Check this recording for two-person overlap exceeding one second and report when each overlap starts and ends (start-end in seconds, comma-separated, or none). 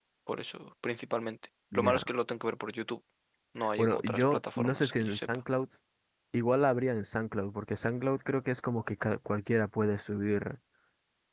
3.8-5.3